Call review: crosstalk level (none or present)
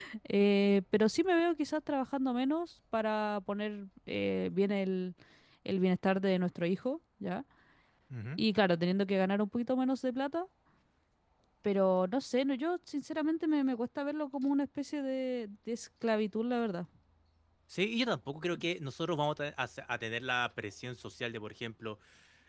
none